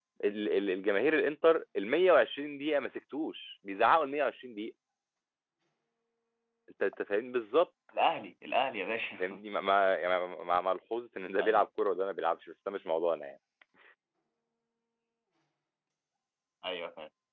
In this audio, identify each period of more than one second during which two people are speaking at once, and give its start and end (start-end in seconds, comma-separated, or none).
none